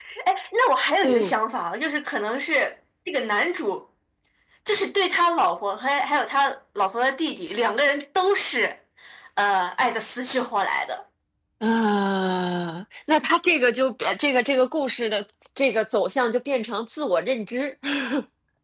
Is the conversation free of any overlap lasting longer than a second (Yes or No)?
Yes